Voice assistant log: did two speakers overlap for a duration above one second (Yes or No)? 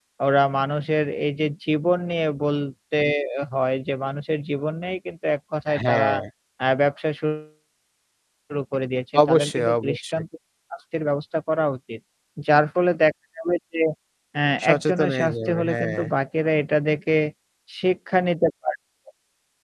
Yes